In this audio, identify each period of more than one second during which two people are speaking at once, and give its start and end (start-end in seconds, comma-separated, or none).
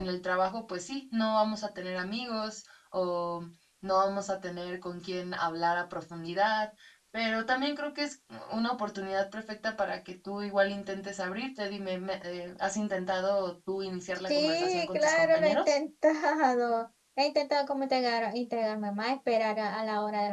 14.3-15.7